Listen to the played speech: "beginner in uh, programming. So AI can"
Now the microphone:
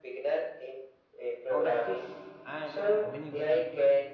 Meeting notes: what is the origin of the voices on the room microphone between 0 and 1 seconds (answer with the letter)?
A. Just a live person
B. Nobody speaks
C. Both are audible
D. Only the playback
D